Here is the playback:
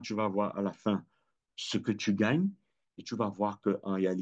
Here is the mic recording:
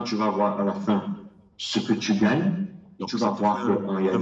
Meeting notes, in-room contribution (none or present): present